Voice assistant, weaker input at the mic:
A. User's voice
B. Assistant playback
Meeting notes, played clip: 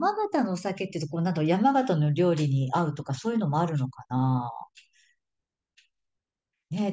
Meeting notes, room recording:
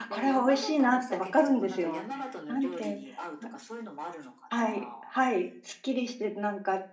B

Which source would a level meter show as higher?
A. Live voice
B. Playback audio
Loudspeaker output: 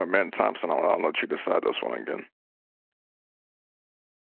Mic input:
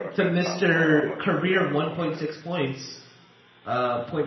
A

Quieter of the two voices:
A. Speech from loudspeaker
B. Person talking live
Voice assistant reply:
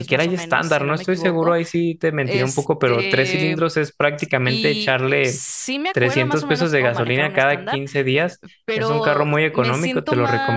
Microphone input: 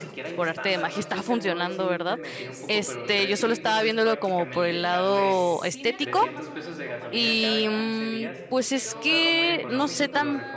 A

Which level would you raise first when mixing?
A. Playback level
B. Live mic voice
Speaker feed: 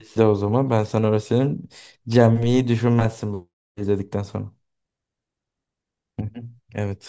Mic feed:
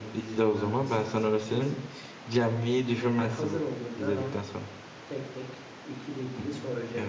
B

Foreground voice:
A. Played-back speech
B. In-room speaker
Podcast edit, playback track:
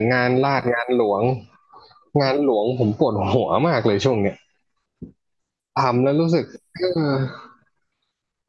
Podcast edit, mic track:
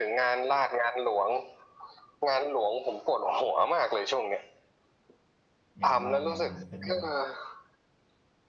A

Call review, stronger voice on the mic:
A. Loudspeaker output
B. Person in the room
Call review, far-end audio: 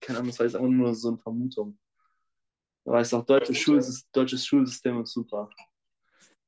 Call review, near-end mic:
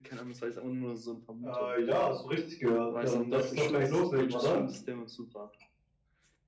B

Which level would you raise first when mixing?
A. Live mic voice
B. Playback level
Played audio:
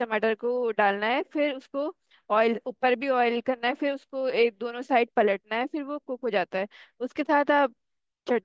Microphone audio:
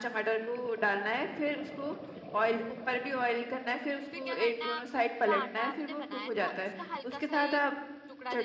A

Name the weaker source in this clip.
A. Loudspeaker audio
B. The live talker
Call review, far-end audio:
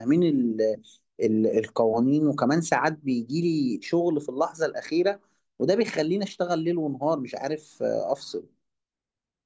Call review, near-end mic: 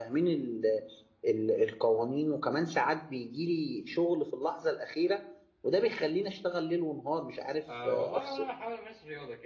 B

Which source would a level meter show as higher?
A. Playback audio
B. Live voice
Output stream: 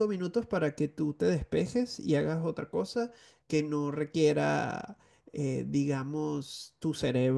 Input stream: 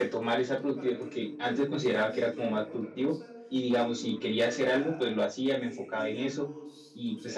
B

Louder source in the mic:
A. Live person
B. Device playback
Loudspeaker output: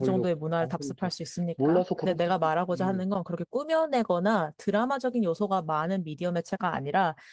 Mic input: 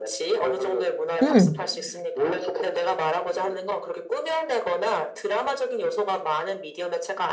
A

